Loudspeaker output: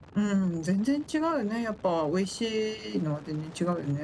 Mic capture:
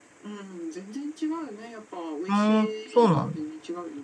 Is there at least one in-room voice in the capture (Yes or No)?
Yes